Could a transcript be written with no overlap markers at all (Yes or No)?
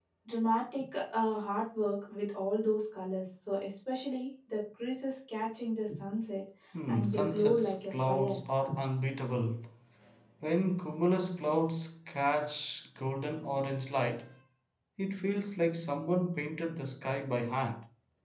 No